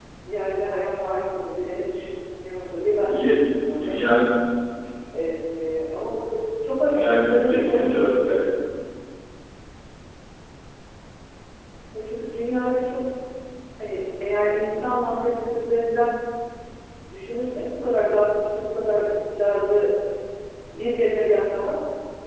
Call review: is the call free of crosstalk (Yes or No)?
No